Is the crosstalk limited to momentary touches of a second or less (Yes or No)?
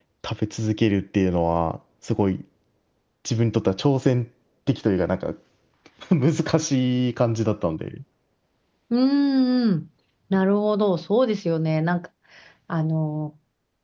Yes